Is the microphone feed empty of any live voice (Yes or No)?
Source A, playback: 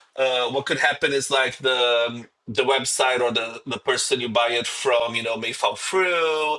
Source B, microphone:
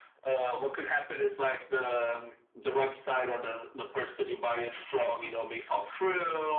Yes